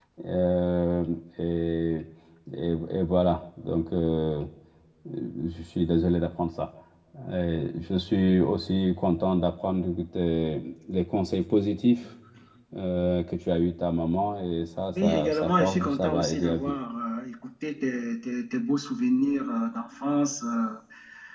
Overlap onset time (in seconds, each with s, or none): 14.9 s